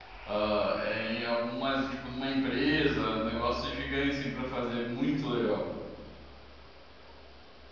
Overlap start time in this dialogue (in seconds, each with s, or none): none